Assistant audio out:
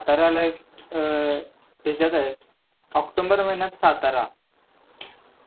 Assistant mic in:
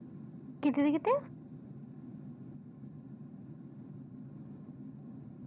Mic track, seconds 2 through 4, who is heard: neither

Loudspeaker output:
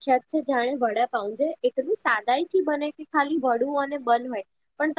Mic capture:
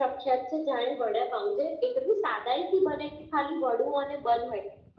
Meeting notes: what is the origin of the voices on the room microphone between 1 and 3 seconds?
echo only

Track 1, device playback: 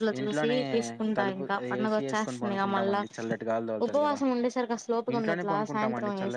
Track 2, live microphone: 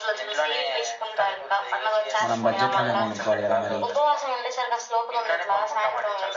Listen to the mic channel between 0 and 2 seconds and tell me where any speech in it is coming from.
echo only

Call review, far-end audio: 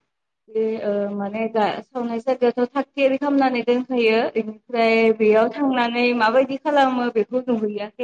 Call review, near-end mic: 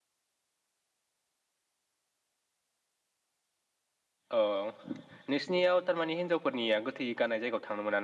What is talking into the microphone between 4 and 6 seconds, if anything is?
user only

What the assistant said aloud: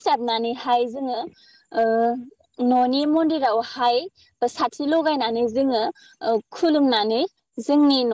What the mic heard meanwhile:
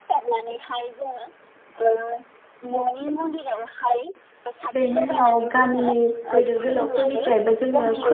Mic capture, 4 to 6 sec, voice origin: both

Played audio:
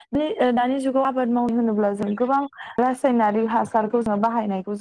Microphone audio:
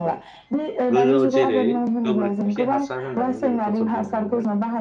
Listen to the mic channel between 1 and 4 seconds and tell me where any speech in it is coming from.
both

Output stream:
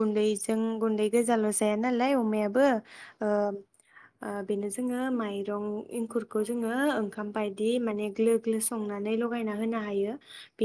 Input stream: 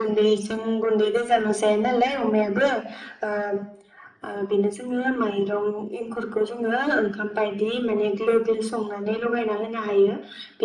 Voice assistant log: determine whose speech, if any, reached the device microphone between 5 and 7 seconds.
echo only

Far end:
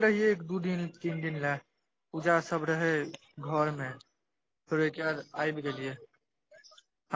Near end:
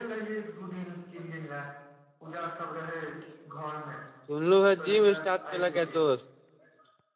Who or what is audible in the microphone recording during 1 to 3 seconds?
echo only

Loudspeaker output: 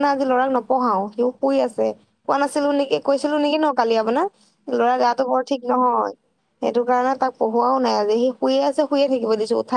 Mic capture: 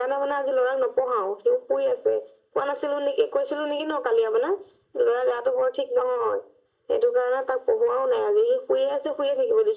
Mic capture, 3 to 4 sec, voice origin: echo only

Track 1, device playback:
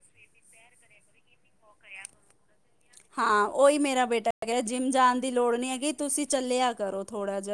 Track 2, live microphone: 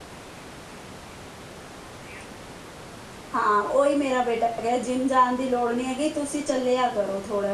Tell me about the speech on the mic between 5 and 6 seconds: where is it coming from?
echo only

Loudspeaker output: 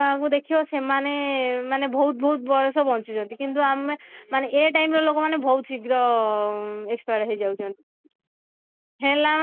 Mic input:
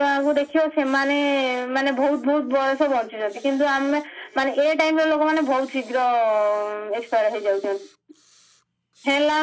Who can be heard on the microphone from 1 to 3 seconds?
echo only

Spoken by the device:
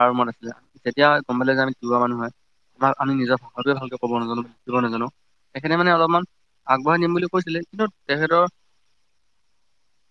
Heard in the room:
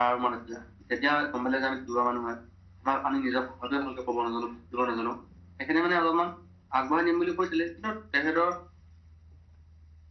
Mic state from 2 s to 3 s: echo only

